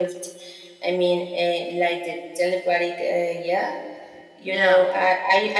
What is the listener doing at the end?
listening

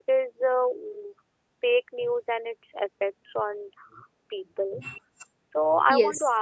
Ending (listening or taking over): listening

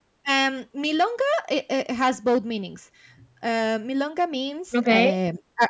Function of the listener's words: listening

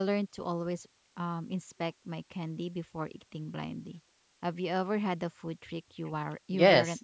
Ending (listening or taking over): taking over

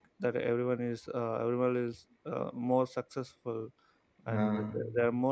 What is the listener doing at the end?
listening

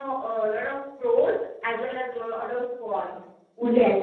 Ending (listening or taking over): taking over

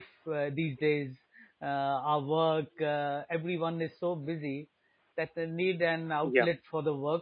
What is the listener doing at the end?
listening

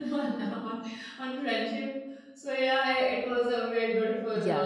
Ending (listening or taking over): taking over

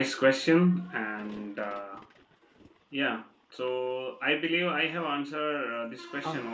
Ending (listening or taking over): taking over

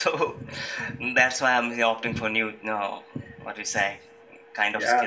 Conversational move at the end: taking over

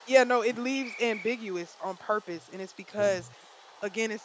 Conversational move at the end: listening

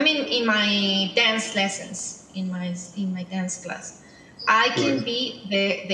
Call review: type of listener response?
listening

